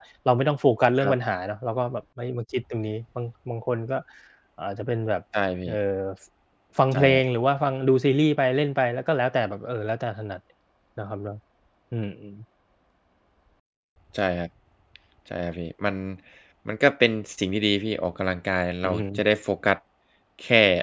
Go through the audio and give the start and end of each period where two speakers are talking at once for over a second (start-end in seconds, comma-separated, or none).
none